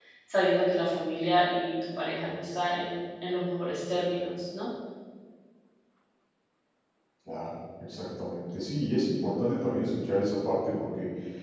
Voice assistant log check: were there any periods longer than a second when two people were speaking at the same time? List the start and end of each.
none

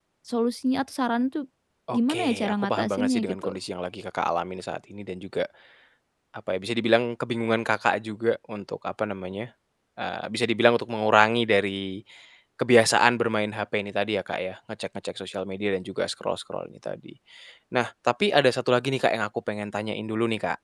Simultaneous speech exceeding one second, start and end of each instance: 1.9-3.6

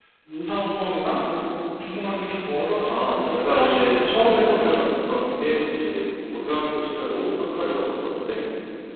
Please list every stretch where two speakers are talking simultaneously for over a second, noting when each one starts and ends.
2.9-4.6

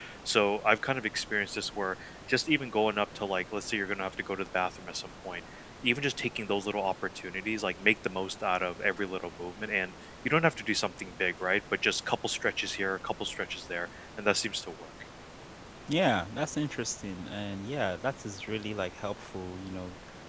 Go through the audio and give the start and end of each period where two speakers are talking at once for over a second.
none

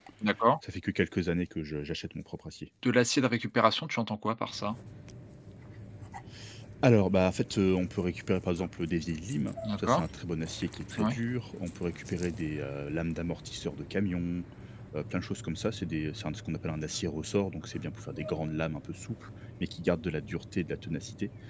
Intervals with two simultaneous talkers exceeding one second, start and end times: none

